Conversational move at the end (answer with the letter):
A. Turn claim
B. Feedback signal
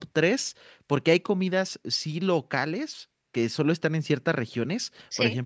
B